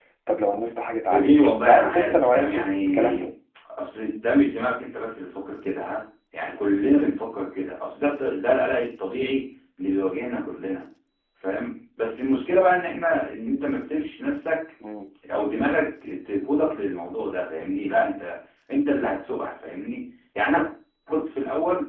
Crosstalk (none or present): present